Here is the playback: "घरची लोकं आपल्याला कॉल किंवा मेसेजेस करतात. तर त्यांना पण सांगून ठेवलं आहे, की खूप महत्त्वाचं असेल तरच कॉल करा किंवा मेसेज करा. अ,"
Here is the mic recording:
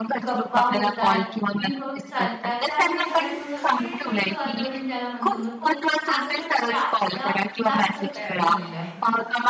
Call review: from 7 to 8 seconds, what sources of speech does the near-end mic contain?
both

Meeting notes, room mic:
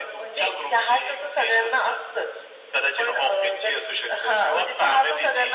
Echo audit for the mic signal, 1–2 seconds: echo only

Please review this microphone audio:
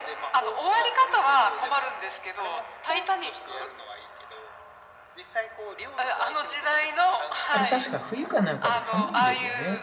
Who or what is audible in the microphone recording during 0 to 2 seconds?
echo only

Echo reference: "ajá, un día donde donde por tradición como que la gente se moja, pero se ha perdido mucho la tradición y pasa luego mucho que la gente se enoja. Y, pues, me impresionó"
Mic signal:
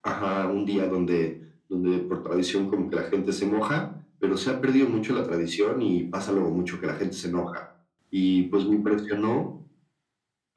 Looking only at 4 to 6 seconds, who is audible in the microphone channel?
echo only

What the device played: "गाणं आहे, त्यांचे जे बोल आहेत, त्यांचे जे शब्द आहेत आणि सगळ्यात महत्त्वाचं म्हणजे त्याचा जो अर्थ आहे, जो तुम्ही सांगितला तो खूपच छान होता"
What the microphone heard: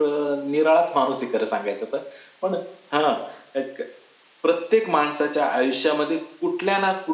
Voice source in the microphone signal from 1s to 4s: user only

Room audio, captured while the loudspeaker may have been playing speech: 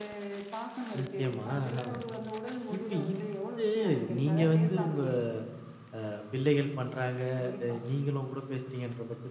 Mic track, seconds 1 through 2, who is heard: both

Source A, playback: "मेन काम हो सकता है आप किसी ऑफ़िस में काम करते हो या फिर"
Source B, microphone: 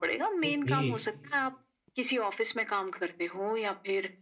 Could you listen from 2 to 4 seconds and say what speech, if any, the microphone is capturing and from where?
echo only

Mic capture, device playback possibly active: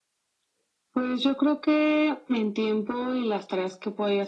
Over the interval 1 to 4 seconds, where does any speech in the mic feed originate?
echo only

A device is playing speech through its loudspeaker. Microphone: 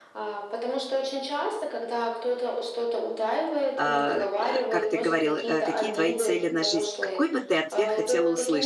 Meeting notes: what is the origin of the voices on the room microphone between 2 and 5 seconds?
both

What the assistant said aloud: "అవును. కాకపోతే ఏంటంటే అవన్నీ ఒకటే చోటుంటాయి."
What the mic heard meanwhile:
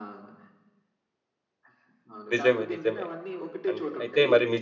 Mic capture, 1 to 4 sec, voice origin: both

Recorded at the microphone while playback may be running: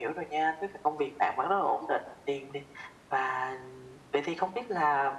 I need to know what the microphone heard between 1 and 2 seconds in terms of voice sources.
echo only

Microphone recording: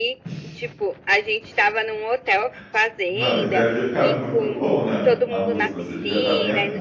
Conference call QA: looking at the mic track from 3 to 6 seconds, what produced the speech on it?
both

